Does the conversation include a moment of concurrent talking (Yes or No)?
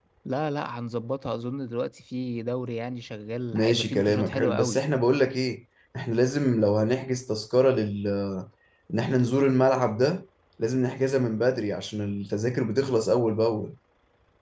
Yes